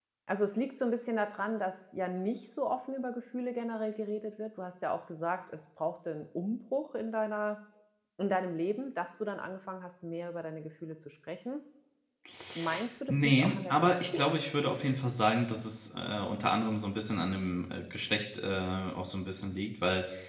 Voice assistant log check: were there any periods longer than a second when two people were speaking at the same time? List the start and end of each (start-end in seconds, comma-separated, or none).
13.1-14.4